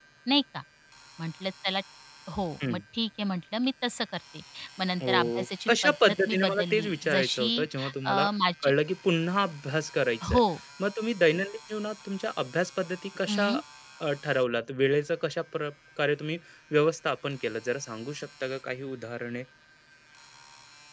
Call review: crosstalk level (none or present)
present